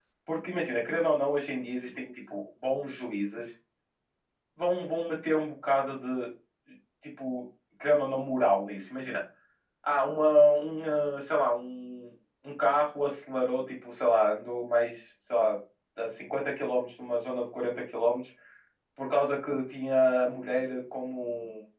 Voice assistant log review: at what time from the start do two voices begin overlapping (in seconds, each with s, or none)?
none